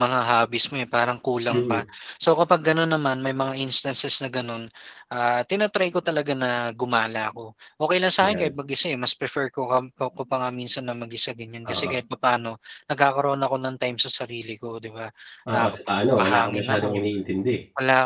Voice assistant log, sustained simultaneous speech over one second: present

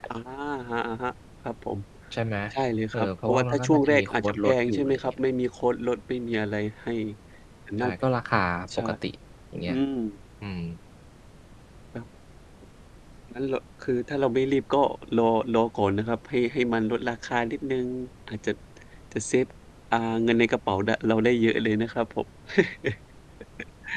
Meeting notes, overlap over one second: present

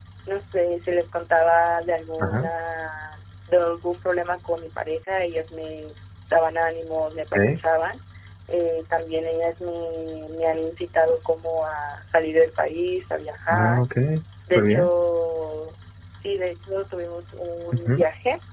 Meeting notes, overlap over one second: none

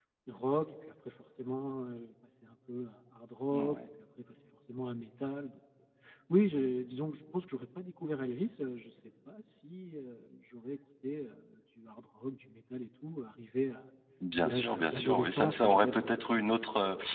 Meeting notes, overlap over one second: present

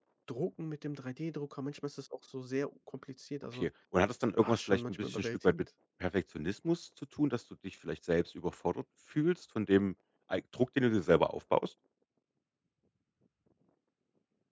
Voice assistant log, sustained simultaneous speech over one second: present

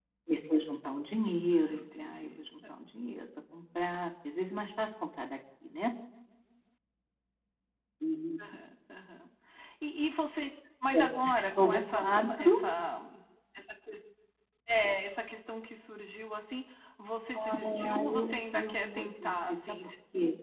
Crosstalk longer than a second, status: present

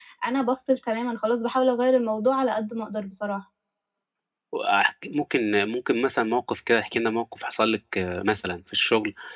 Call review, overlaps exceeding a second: none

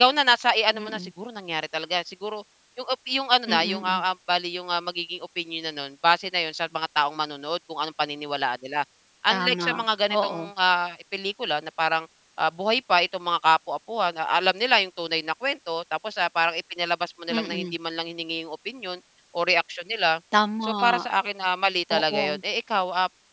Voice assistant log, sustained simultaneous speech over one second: present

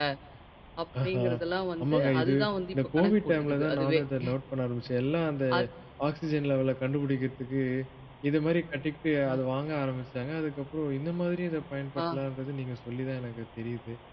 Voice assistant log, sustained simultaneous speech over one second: present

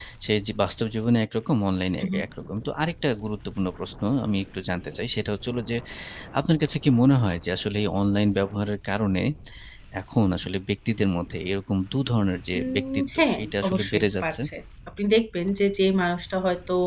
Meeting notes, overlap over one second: present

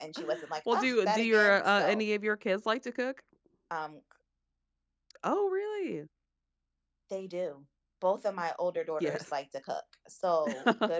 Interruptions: present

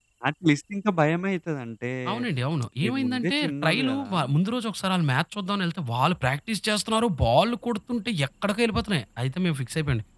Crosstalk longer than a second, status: present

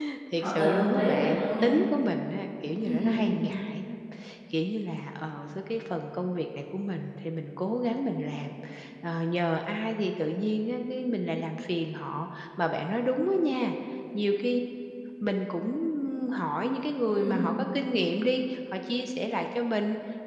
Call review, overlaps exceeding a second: present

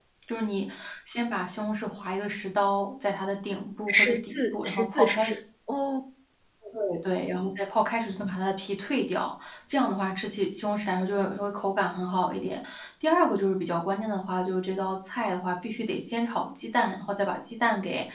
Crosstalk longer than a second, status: present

